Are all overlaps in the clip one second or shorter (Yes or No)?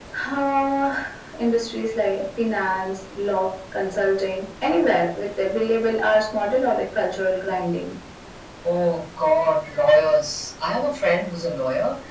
Yes